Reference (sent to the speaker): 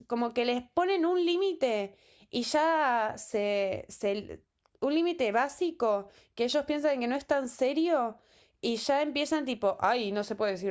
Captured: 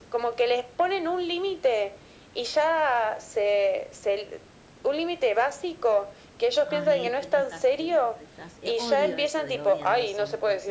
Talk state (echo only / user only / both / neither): both